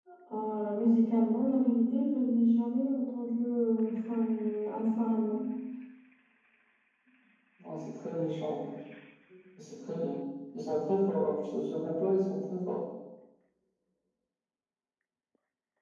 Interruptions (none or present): none